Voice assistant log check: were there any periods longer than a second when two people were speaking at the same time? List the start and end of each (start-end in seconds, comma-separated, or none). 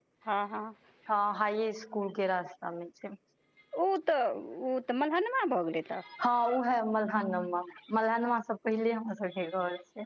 none